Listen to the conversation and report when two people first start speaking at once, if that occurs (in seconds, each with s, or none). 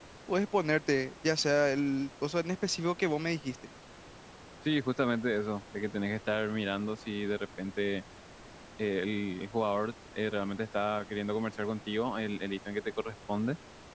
none